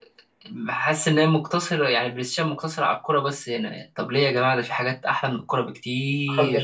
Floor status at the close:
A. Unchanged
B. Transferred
B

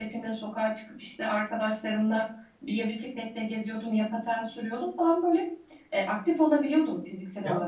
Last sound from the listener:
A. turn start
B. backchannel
A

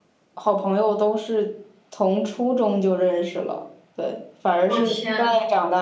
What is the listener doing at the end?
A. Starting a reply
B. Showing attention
B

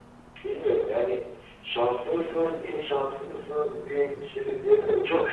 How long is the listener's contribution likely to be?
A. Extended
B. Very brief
A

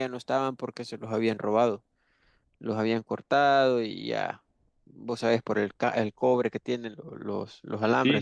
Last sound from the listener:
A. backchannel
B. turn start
B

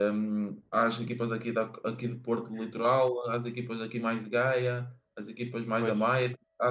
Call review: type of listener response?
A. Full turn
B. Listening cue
B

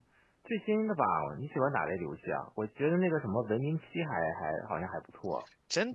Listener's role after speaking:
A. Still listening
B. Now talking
B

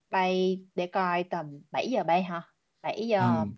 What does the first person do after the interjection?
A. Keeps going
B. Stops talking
B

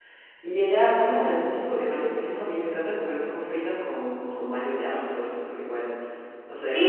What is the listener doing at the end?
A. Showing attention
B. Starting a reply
B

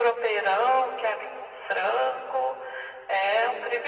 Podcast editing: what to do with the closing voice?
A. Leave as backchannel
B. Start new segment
B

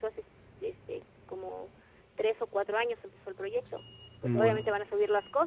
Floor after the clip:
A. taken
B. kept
B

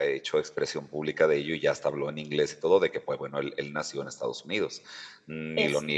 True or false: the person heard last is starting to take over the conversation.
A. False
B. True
A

